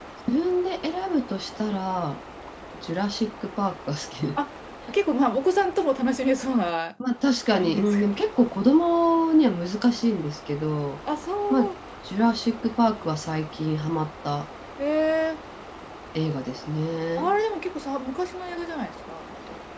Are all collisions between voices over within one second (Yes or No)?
Yes